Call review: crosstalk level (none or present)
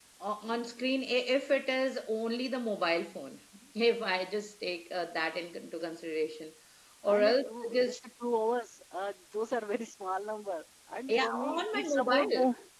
present